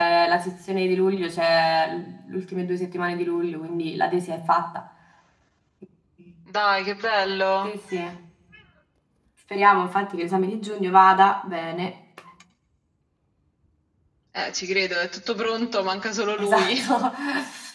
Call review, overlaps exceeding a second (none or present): none